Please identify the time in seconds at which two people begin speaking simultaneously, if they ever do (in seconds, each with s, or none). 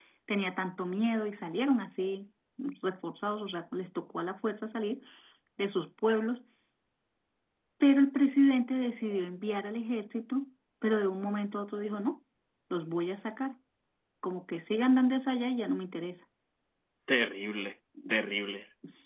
none